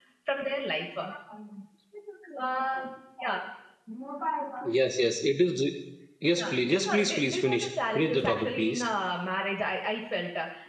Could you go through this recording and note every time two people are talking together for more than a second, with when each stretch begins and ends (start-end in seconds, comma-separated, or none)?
6.4-8.8